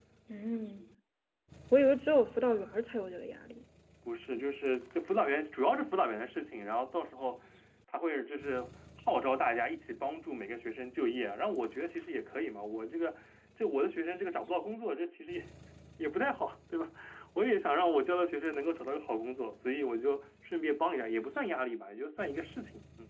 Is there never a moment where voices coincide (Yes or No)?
Yes